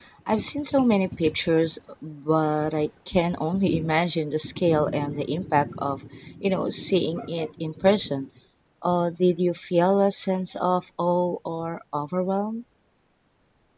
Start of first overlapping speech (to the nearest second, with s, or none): none